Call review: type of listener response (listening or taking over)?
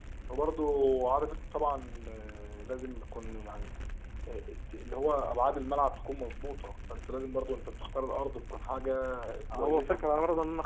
taking over